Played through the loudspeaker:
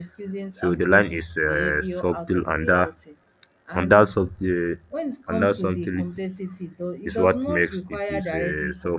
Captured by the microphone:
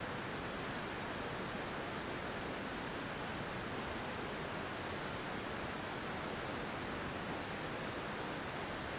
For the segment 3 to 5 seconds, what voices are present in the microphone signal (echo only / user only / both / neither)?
neither